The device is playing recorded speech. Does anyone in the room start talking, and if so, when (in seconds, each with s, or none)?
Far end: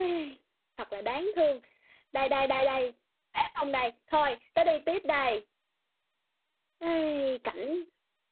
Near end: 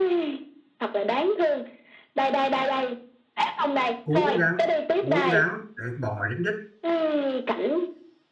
4.0 s